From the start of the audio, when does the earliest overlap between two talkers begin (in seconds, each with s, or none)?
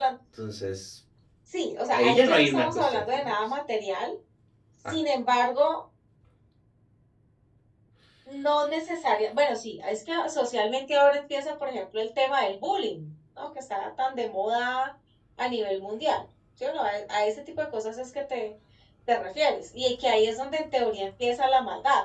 1.9 s